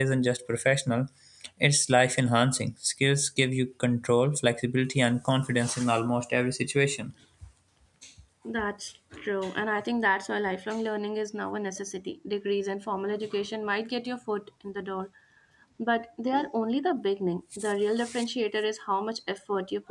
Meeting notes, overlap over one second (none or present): none